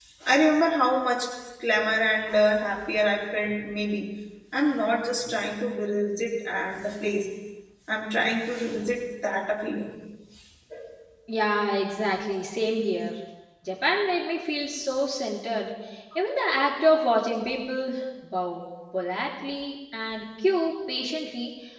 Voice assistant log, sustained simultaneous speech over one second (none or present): none